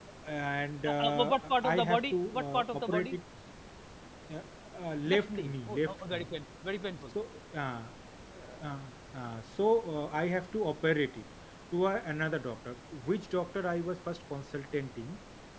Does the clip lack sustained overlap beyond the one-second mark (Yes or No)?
No